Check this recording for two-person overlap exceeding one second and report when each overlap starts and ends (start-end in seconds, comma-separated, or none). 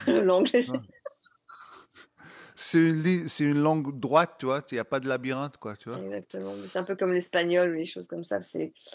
none